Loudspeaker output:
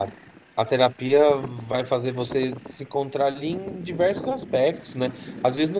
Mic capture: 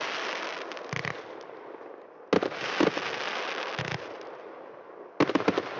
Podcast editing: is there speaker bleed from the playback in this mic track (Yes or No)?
No